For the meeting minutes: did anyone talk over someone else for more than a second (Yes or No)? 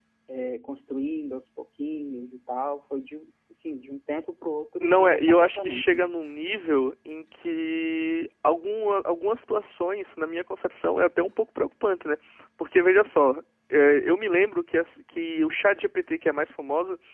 Yes